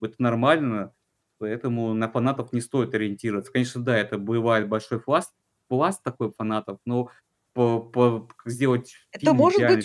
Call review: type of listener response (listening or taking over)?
taking over